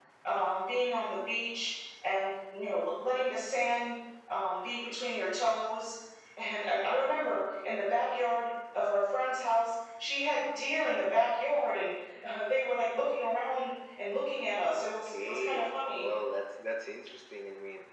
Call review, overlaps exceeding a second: present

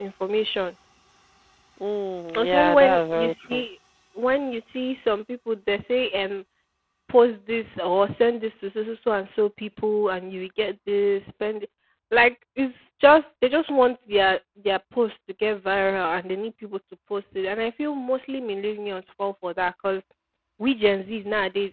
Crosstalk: present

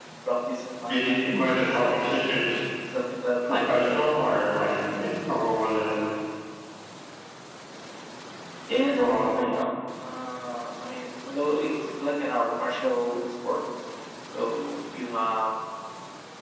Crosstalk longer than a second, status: present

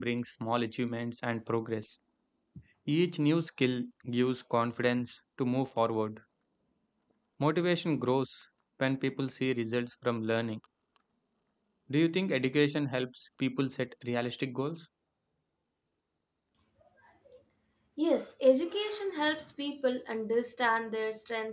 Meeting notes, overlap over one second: none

